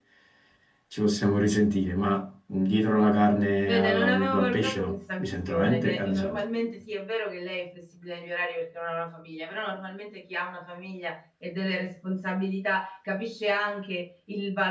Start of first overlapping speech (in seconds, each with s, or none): 3.6 s